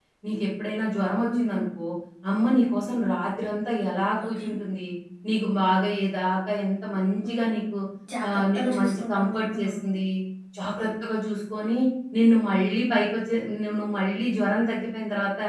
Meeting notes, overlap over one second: present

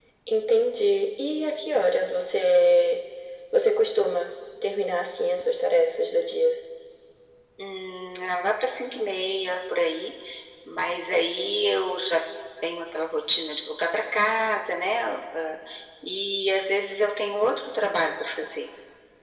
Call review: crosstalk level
none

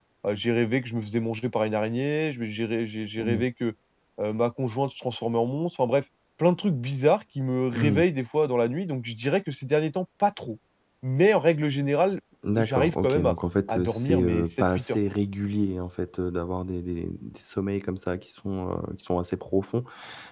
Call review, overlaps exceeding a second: present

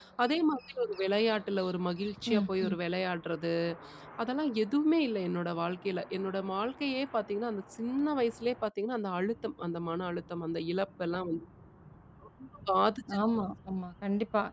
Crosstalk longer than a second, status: none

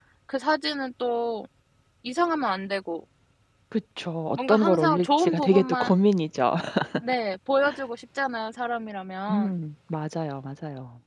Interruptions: present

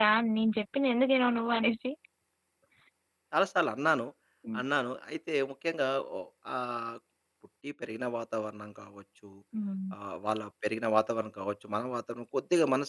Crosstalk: none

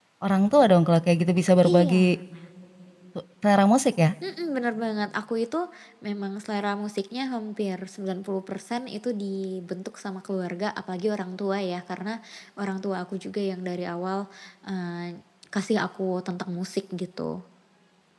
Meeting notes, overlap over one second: none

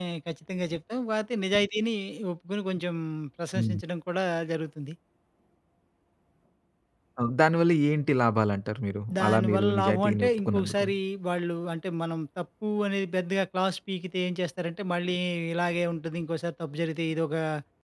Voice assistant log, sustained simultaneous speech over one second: present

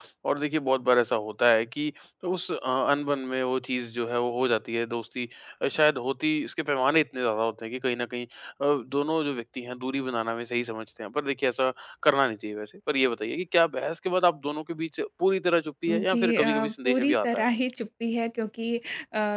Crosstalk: present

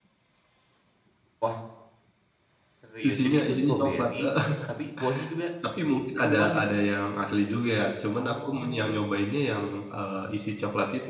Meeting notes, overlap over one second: present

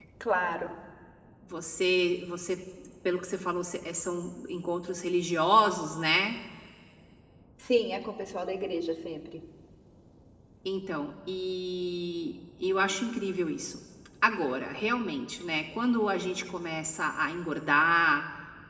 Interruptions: none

